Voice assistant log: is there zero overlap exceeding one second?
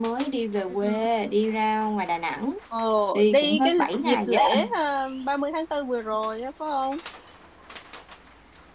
No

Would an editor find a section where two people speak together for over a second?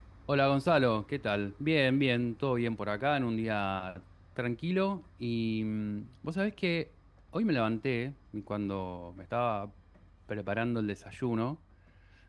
No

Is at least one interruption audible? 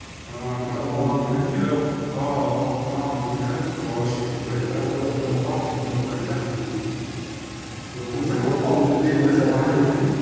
Yes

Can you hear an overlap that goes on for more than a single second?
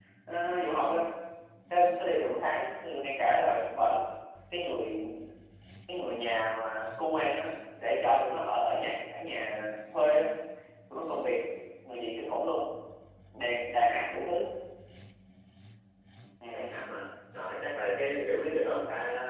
No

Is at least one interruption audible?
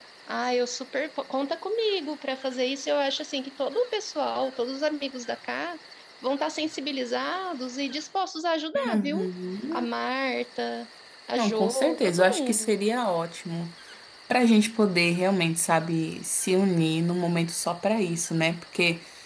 Yes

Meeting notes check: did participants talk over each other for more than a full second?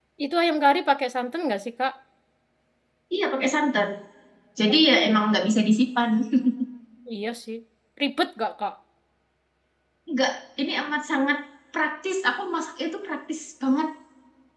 No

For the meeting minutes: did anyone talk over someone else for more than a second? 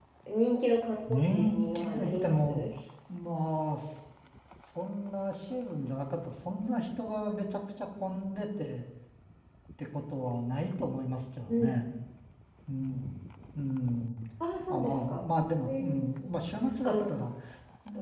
Yes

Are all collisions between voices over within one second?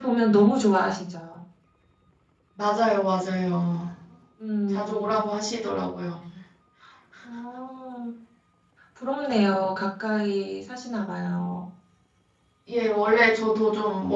Yes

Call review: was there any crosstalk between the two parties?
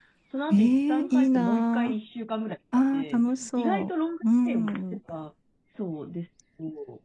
Yes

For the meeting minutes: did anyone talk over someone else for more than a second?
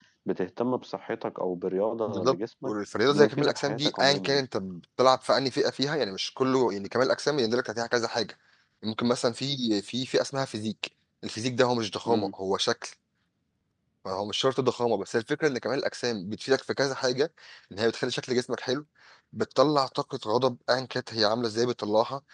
Yes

